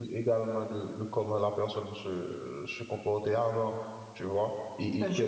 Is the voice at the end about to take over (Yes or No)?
Yes